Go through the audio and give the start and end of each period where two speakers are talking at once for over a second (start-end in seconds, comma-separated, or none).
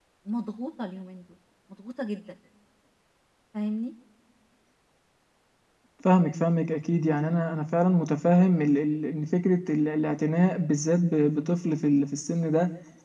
none